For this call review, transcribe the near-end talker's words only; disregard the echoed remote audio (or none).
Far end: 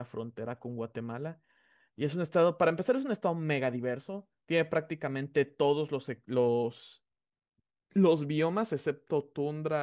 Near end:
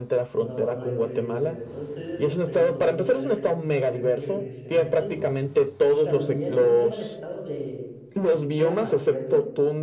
No, no, increíble. Mira, entonces tengo estos dos lugares costaneros que me mencionaste. Y también, ¿cómo se llama el estado de, de Chiapas, cierto?